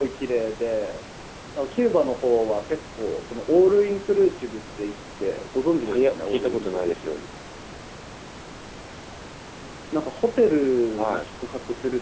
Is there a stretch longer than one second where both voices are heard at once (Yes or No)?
Yes